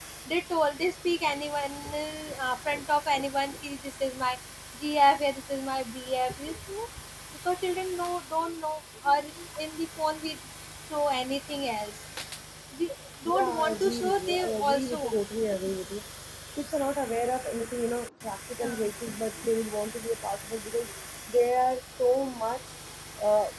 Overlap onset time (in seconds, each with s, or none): 13.3 s